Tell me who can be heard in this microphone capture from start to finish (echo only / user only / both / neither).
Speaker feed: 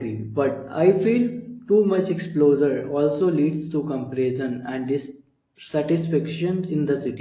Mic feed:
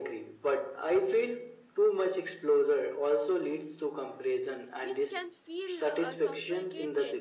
both